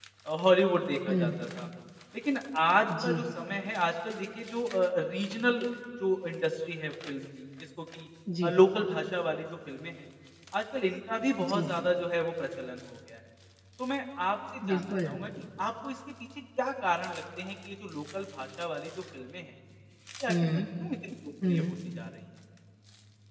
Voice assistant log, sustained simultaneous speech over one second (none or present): none